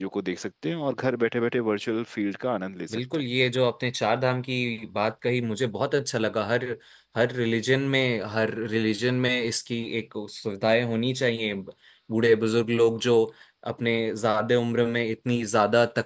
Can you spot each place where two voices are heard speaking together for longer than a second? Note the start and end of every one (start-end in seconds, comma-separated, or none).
none